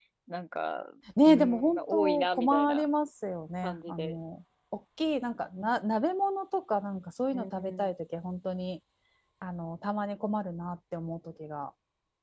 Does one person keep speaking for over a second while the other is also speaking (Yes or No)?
Yes